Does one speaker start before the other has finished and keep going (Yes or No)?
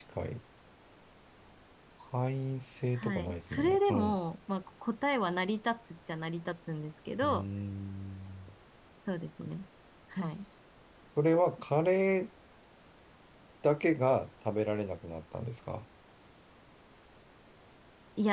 Yes